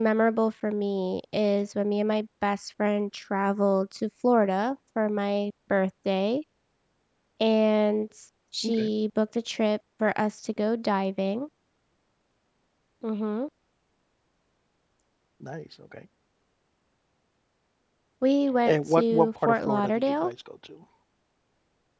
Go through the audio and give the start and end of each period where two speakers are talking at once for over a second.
18.6-20.3

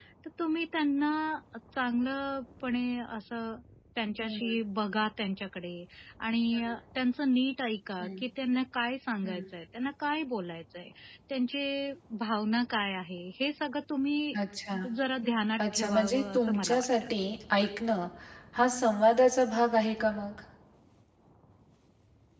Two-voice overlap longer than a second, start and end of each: 15.6-16.8

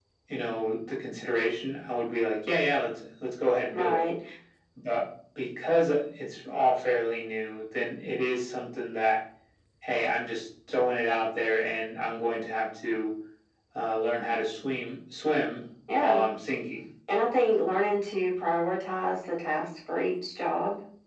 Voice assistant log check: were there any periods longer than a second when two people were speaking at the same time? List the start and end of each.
none

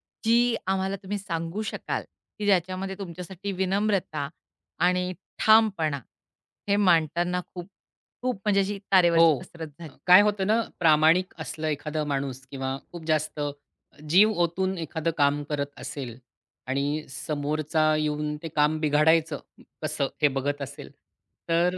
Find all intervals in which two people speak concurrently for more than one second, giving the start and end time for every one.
none

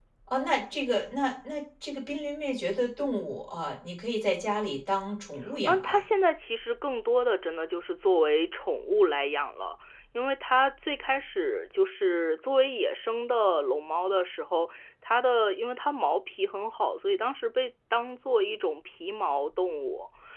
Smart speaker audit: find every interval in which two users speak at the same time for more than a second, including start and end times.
none

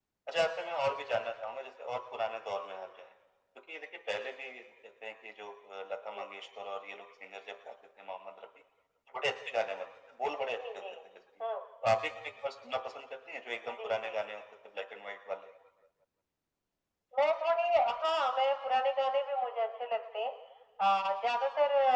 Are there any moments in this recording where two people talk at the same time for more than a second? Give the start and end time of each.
none

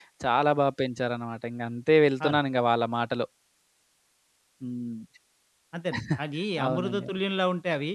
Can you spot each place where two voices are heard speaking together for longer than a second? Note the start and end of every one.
none

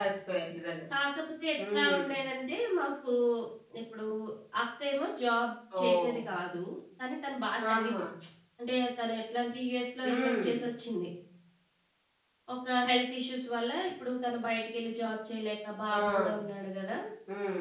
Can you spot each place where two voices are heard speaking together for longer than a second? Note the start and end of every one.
none

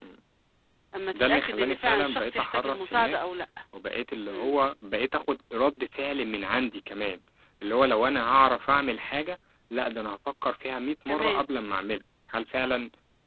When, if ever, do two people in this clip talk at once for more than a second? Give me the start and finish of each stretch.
1.1-3.2

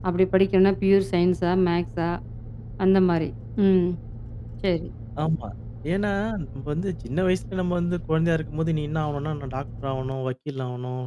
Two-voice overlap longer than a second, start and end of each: none

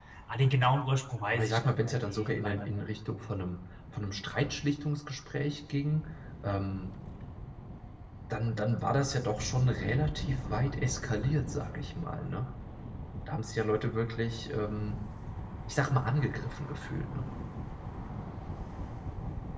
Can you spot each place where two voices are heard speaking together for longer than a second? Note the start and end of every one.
1.3-2.8

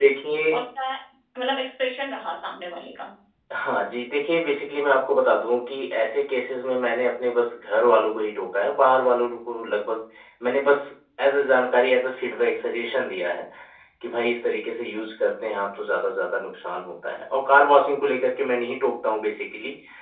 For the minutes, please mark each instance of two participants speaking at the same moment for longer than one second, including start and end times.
none

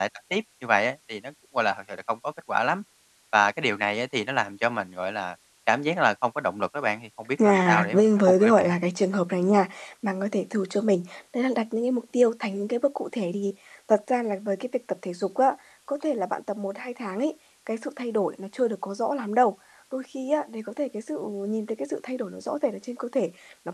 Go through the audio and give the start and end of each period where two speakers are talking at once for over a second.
7.4-8.7

